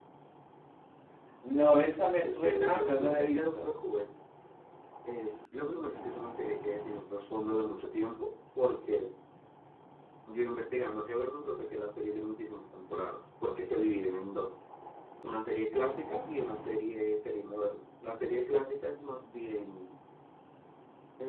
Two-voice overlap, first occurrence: 2 s

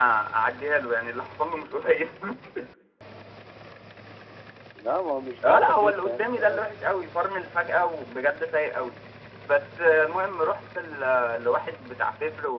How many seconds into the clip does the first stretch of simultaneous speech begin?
5 s

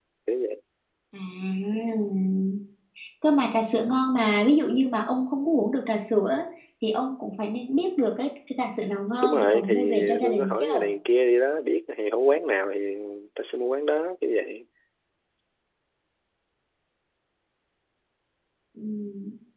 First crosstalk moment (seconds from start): 9 s

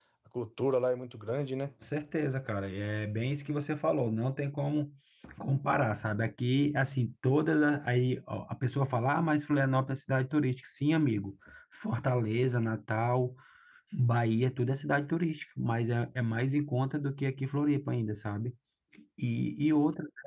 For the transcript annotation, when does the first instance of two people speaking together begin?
none

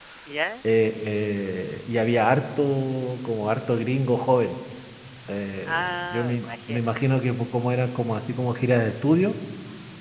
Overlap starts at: 6 s

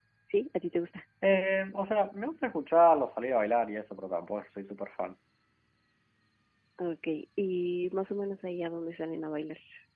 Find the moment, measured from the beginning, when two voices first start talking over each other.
none

